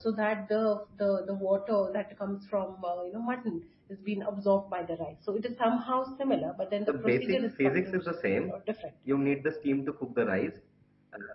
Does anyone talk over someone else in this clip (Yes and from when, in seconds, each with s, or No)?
Yes, from 6.9 s